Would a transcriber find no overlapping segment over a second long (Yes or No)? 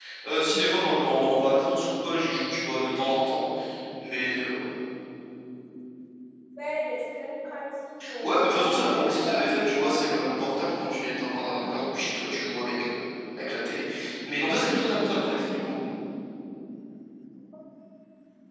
No